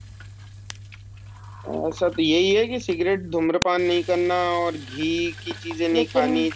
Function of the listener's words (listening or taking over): listening